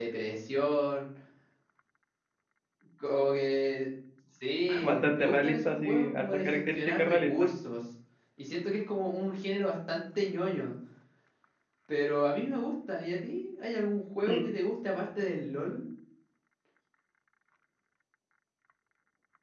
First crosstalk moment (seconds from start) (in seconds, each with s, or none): 4.8 s